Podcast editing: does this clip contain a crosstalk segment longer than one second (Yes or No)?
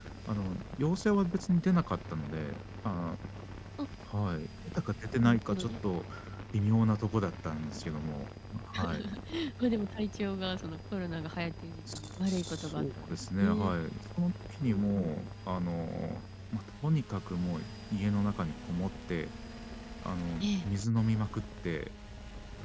Yes